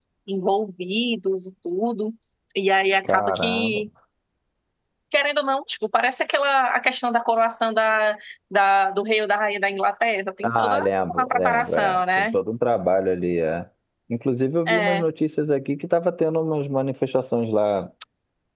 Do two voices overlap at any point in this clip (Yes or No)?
Yes